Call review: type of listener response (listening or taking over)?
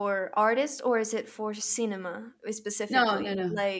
taking over